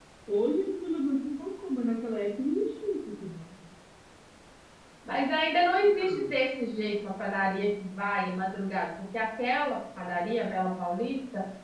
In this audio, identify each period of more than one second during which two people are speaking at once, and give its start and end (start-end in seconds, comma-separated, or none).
none